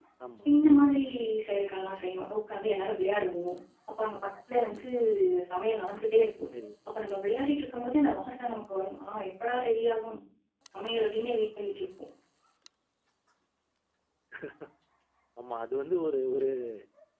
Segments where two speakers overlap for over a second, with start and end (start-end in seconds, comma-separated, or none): none